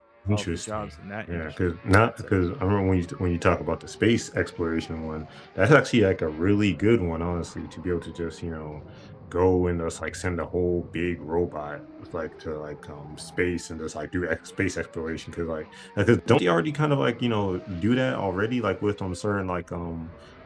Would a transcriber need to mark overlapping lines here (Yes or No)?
Yes